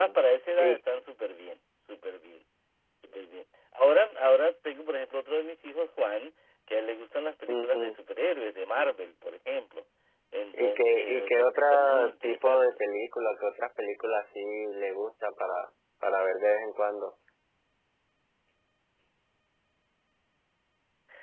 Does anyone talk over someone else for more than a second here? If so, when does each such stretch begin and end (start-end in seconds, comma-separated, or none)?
10.5-12.7